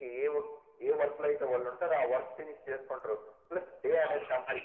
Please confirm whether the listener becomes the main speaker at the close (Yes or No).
Yes